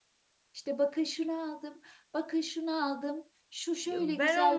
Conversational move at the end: taking over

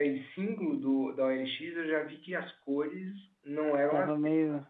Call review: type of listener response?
listening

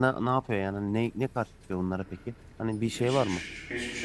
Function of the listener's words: taking over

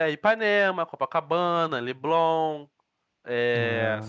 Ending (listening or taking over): listening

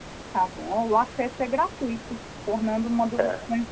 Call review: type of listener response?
listening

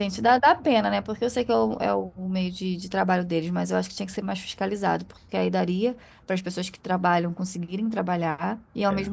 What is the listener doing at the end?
listening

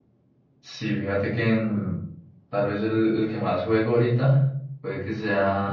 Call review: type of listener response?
listening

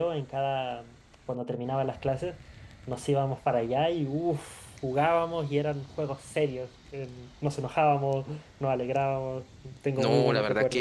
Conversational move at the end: taking over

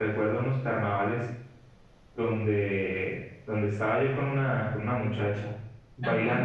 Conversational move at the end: listening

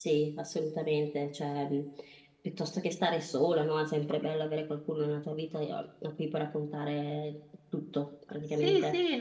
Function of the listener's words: taking over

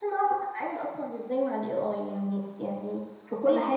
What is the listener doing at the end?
listening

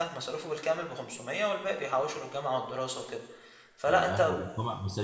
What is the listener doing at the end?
taking over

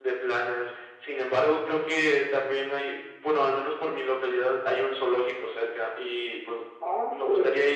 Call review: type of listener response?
listening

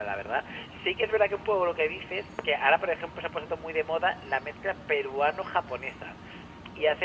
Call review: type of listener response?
listening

